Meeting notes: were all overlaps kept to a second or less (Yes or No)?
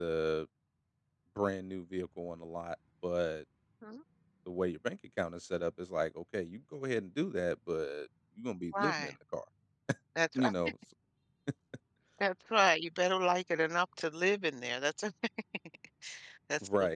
Yes